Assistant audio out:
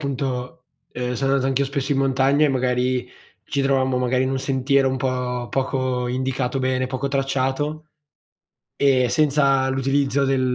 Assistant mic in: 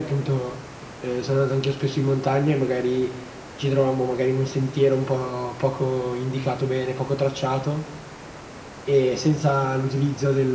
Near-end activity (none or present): none